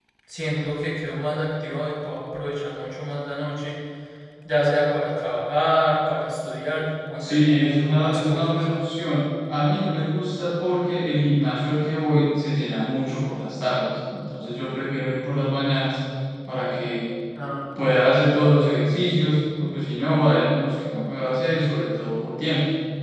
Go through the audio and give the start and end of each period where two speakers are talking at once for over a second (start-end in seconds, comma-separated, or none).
7.2-8.5